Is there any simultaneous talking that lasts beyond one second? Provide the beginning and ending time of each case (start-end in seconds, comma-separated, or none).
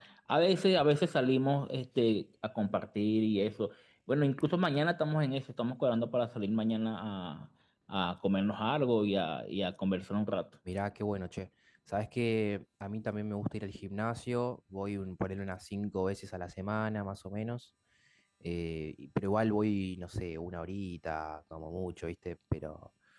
none